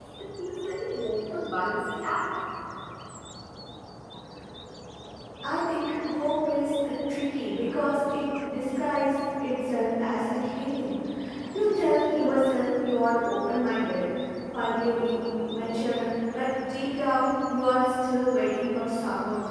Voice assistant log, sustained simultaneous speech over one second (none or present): none